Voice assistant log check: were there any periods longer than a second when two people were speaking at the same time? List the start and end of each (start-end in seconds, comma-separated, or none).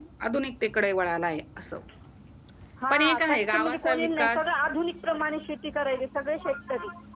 2.9-4.5